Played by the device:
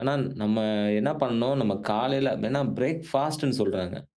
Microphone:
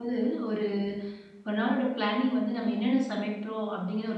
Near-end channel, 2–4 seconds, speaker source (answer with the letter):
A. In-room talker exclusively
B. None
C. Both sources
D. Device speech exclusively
A